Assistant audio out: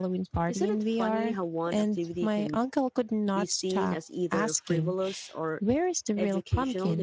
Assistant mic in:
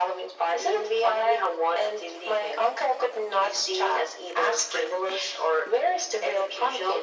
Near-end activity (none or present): none